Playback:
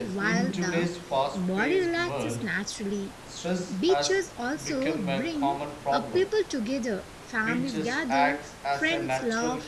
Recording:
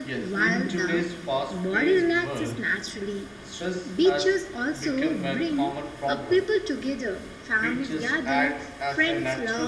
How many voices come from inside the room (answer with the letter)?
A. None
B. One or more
A